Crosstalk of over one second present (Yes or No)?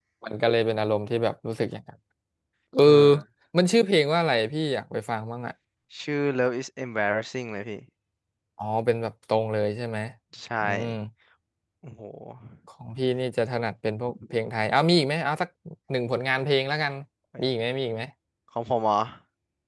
No